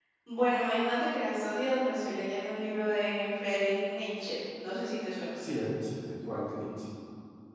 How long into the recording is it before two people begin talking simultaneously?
none

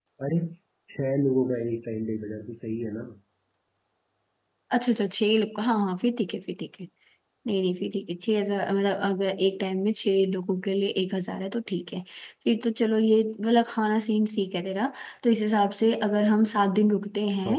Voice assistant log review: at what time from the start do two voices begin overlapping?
none

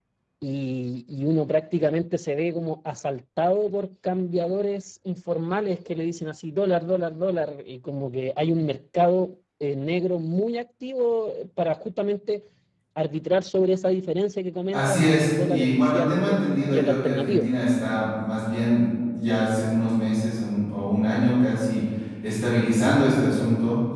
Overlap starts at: 14.7 s

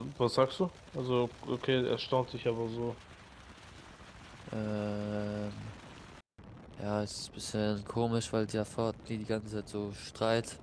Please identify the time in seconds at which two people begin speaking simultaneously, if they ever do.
none

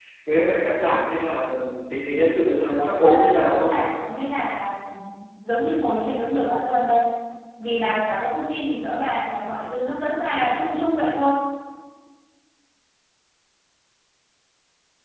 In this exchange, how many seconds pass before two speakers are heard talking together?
2.4 s

